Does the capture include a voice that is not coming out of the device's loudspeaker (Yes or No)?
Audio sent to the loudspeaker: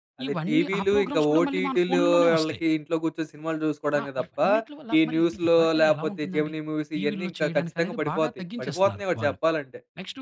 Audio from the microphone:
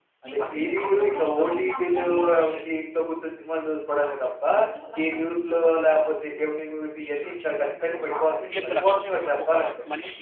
Yes